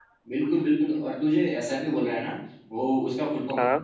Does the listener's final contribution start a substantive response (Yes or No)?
No